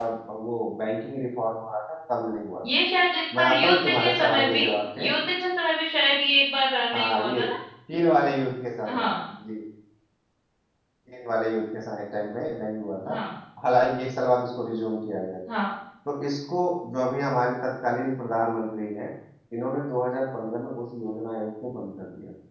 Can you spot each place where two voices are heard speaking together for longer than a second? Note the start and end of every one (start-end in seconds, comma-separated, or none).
3.4-4.6